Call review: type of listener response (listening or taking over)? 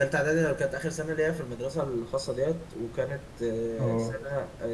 listening